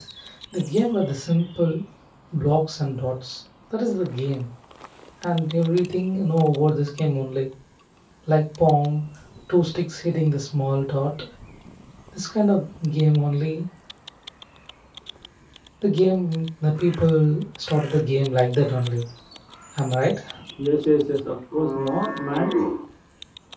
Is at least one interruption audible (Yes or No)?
No